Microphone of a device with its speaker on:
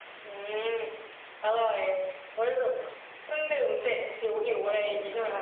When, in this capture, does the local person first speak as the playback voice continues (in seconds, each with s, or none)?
4.3 s